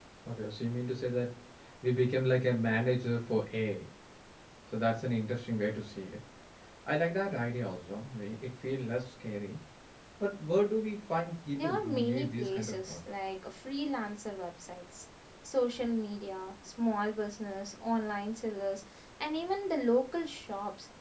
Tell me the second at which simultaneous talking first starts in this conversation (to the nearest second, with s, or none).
12 s